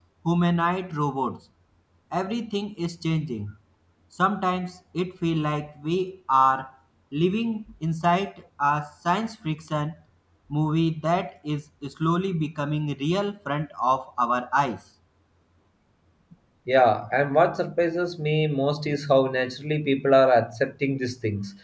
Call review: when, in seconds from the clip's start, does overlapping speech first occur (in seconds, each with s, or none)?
none